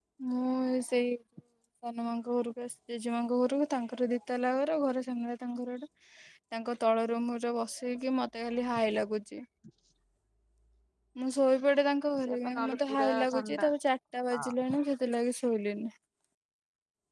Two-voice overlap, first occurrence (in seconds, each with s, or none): 12.2 s